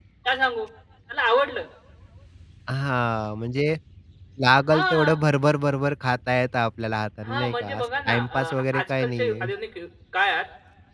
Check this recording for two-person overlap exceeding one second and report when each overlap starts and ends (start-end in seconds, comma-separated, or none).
7.2-9.5